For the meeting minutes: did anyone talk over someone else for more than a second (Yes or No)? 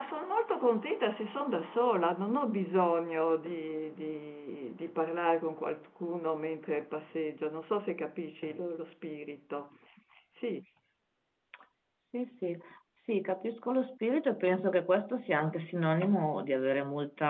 No